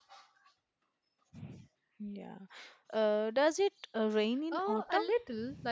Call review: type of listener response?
taking over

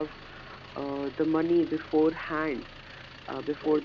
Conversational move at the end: listening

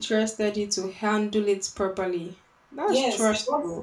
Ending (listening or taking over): taking over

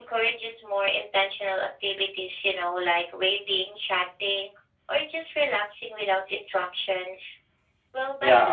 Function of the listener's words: taking over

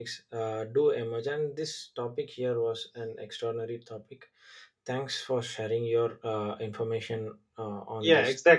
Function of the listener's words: taking over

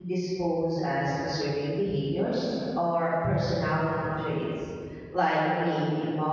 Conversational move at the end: listening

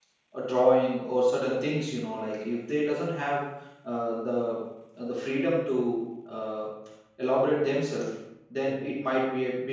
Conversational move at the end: listening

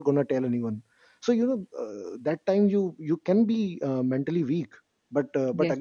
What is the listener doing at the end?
listening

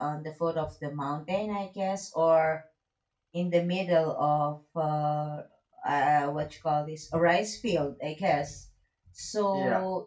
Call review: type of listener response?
listening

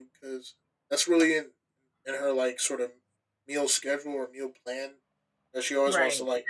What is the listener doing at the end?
listening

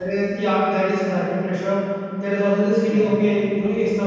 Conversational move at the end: listening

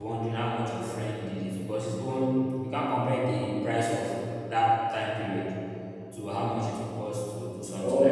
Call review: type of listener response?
taking over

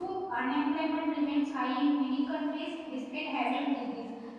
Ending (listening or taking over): listening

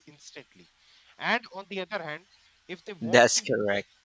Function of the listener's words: listening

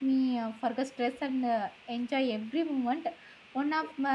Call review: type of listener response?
listening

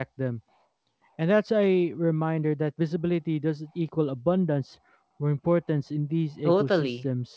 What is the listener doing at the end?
taking over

